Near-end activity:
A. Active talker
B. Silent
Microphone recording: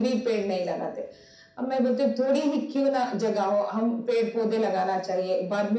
B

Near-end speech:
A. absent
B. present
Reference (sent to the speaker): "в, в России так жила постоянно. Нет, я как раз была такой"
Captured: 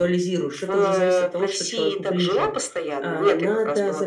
B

